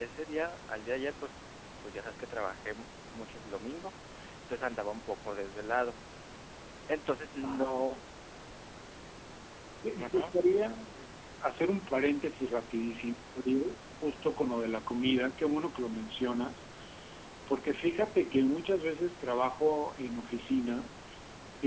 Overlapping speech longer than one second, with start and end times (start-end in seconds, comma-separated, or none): none